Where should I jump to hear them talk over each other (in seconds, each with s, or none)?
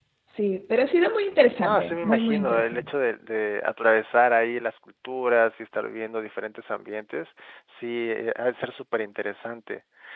1.6 s